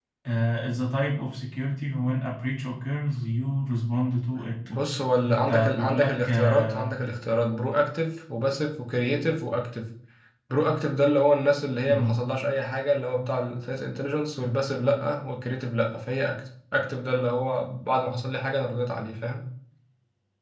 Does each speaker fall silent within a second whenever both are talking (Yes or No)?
No